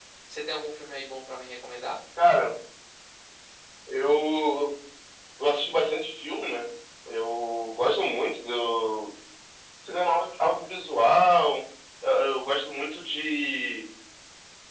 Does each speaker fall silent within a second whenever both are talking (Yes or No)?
Yes